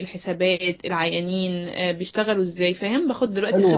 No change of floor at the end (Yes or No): No